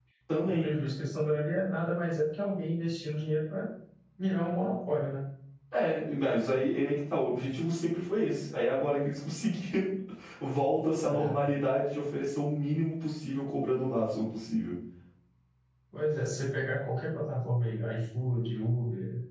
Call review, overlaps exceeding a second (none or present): none